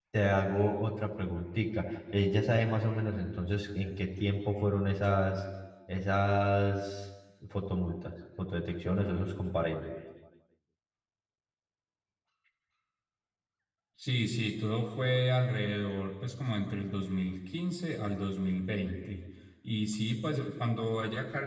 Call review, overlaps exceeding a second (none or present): none